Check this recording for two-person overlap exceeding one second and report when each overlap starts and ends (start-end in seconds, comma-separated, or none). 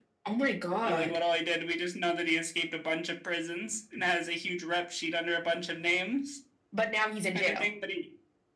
none